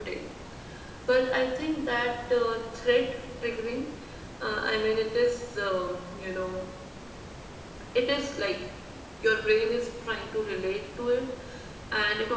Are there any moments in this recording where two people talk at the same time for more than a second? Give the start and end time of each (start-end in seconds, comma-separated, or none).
none